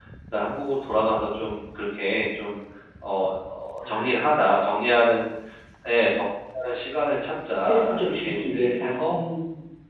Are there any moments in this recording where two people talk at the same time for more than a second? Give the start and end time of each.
7.7-9.2

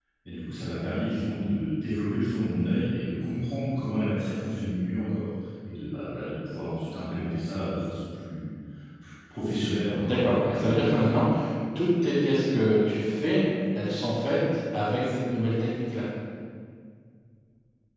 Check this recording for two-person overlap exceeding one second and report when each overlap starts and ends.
10.0-11.2

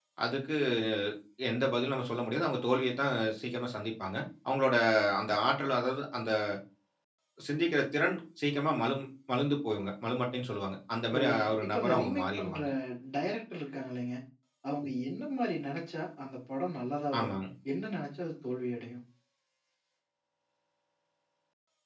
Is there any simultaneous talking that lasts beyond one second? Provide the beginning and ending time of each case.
11.1-12.6

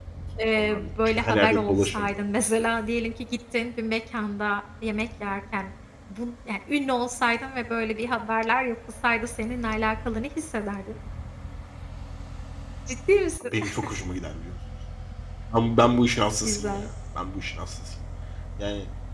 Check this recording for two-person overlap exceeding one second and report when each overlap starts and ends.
0.6-2.2

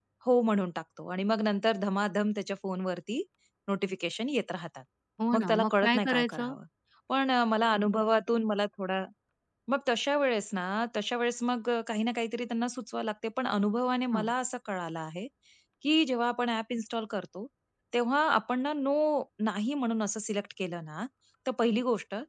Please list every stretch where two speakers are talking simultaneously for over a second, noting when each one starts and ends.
5.3-6.5

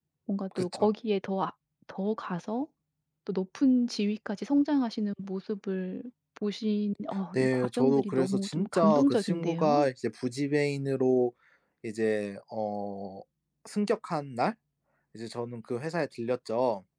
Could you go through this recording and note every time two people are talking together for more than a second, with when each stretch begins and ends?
7.3-9.9

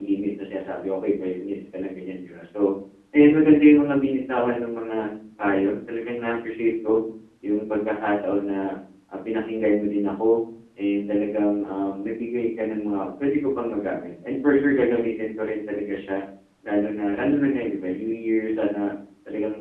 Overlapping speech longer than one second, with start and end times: none

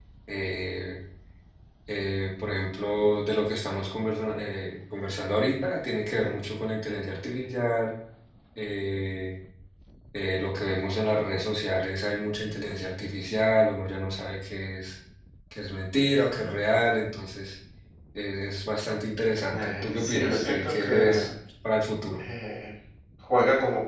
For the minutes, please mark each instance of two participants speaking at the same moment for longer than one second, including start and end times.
19.5-21.2

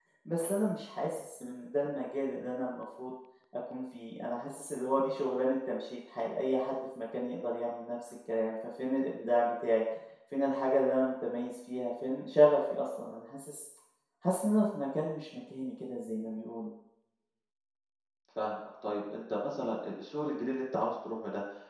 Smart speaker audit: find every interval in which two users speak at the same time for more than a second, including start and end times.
none

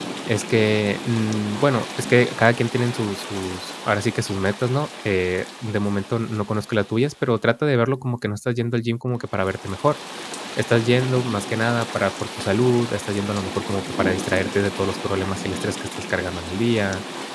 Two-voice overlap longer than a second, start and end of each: none

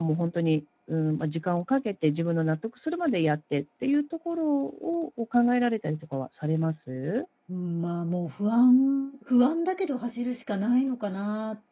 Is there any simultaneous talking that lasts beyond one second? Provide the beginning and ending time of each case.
none

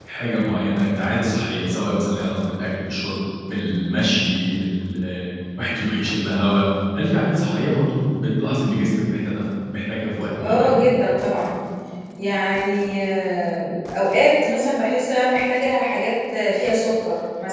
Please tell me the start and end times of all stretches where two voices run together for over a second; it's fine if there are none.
none

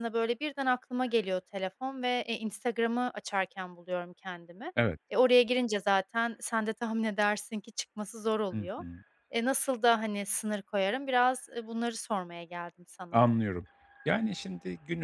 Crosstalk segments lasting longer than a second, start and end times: none

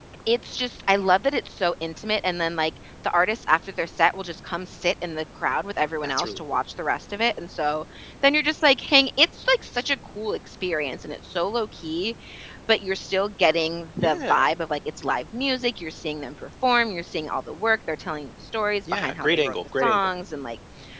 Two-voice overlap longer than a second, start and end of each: 18.9-20.1

